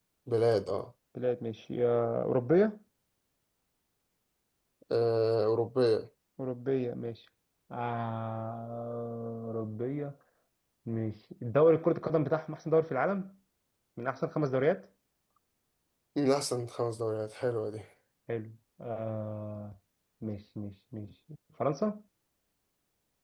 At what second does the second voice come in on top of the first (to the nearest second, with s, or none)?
none